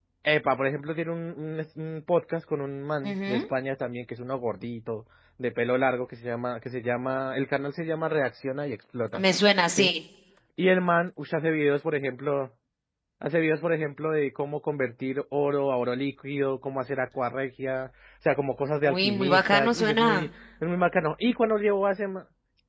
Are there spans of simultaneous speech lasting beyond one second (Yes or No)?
Yes